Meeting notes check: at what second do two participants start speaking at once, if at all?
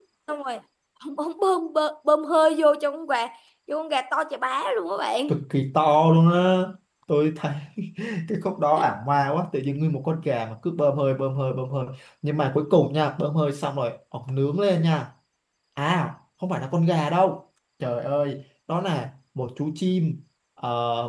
none

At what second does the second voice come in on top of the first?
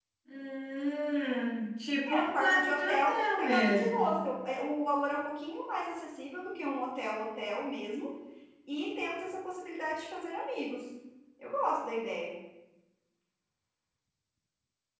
2.1 s

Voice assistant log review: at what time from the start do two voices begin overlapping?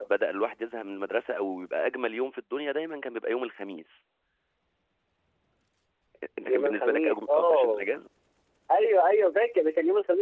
6.5 s

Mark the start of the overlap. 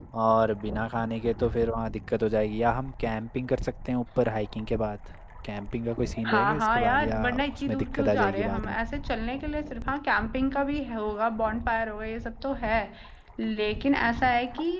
6.2 s

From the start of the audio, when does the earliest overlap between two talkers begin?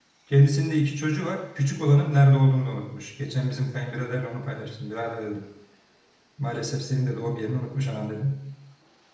none

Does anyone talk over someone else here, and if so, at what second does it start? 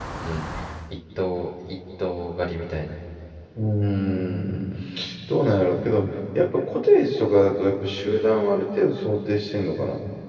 none

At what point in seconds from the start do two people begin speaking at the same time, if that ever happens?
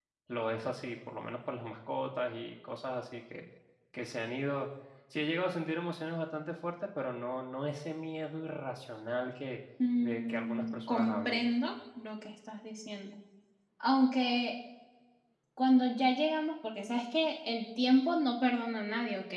10.0 s

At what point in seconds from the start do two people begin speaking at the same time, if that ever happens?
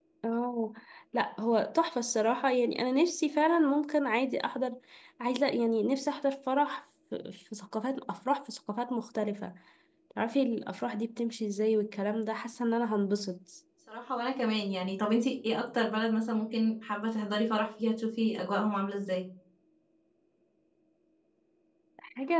none

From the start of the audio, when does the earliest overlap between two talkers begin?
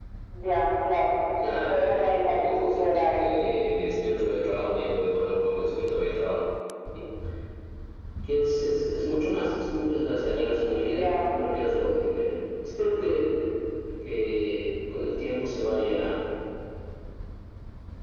1.7 s

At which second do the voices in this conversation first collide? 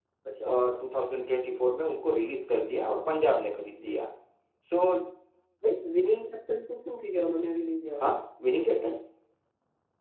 none

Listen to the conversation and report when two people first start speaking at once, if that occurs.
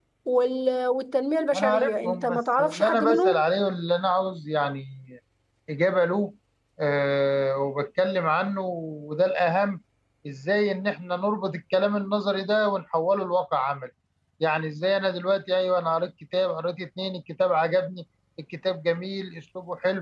1.5 s

